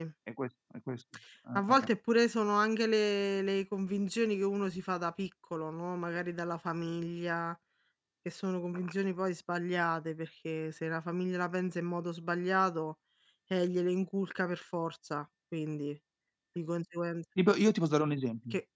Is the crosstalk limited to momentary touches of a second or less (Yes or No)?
Yes